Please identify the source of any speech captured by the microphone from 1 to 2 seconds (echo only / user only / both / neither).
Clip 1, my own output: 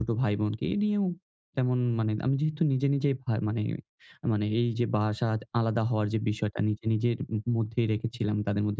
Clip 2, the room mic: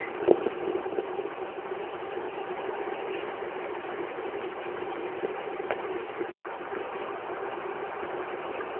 neither